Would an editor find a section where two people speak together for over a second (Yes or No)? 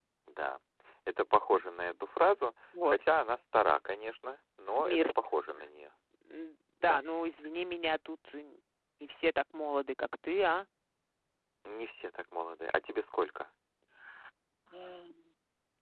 No